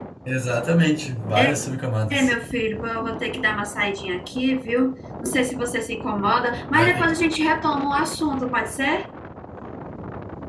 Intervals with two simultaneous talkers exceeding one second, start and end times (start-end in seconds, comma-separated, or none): none